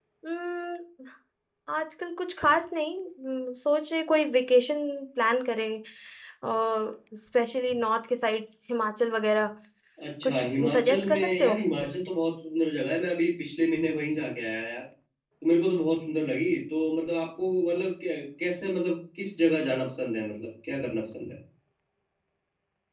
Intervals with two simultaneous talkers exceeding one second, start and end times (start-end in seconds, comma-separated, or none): 10.2-11.6